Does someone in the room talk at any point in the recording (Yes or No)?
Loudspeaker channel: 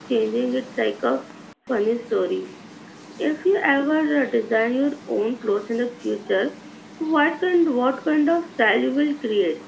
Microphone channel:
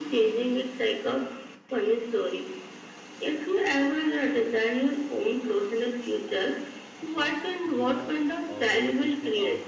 Yes